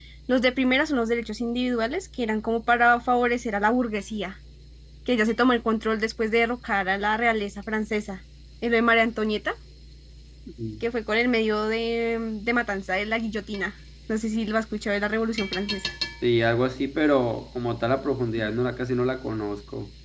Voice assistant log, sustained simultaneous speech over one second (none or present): none